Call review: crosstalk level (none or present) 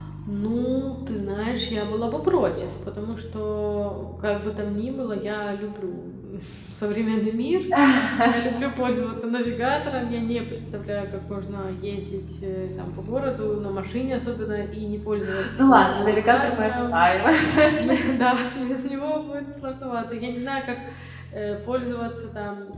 present